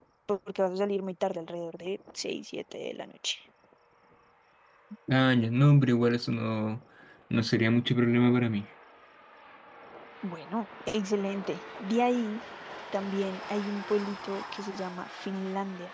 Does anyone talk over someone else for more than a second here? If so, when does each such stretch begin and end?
none

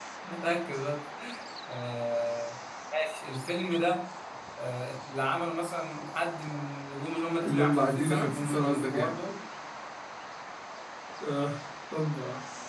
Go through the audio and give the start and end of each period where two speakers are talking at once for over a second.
7.4-9.1

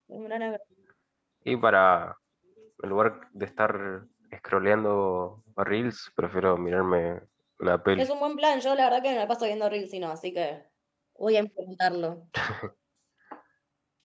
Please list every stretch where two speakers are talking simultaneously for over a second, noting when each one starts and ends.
none

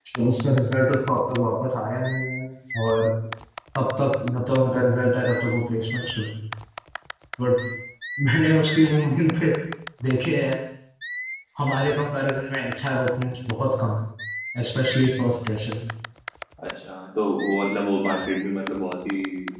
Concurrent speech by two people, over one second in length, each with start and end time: none

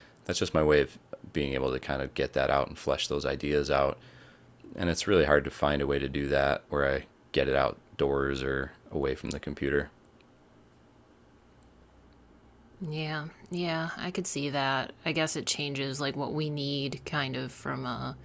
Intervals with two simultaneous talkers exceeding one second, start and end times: none

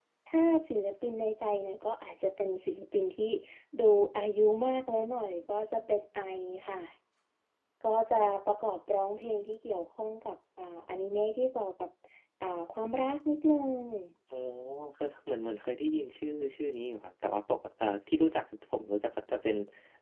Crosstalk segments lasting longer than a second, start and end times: none

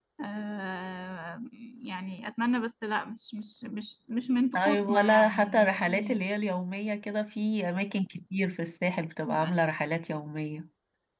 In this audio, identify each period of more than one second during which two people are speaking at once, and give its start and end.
4.5-6.2

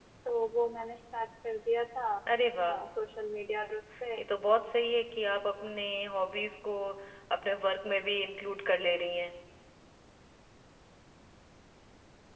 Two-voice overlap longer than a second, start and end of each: none

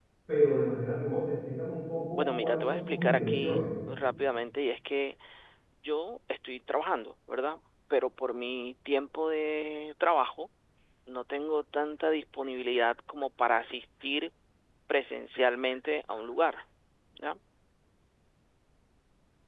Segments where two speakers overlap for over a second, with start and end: 2.1-3.7

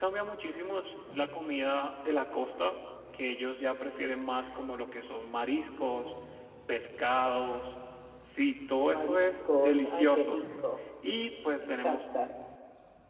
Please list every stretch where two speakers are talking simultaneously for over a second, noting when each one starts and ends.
8.9-10.4

